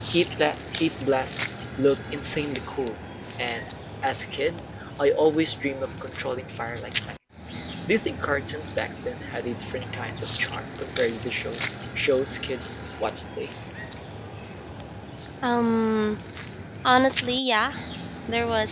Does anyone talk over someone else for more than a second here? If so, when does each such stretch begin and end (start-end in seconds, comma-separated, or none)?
none